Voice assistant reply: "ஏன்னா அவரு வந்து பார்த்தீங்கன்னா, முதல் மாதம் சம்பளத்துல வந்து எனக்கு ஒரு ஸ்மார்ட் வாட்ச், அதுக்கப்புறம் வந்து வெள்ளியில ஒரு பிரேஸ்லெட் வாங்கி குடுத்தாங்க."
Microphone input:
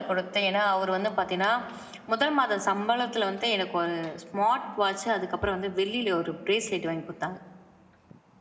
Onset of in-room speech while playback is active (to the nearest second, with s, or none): none